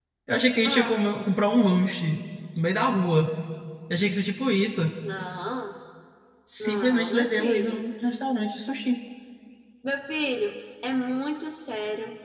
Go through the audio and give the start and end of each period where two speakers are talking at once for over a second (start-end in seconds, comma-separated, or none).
6.6-7.8